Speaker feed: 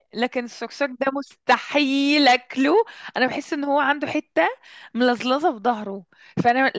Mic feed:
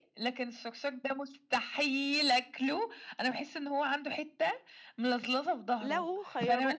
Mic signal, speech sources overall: both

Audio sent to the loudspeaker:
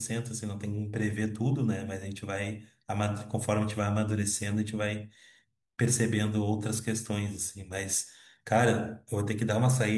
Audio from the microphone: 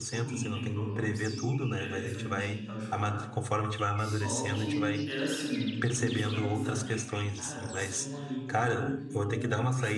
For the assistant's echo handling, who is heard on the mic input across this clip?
both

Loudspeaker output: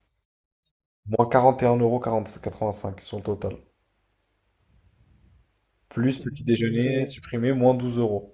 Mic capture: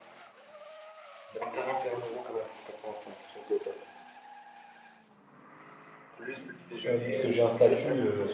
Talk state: both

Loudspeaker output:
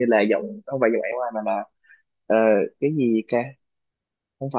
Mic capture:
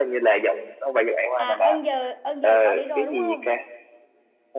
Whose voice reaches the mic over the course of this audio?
both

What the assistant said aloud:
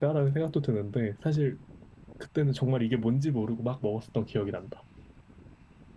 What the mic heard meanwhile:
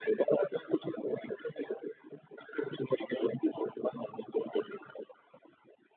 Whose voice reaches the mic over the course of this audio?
echo only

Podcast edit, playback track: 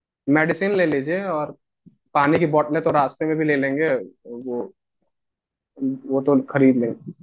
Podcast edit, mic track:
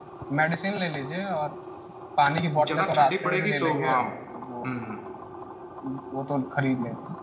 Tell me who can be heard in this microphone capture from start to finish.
both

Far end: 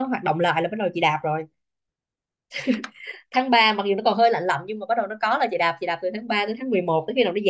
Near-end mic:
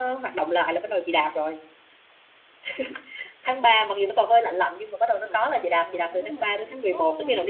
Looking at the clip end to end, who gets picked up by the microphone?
both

